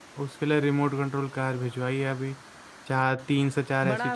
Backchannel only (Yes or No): No